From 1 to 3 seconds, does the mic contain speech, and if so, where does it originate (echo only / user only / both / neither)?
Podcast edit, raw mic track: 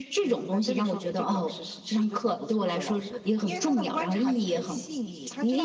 echo only